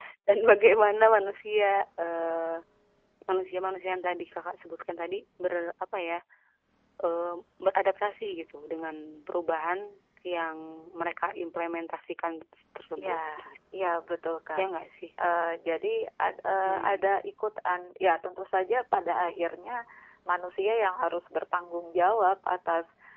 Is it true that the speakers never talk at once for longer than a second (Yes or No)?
Yes